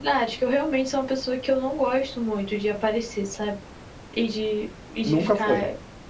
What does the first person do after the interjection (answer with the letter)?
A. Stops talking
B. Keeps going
B